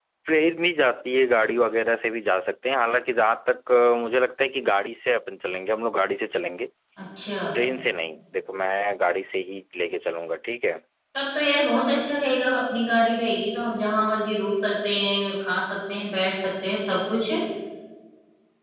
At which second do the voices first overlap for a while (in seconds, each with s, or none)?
none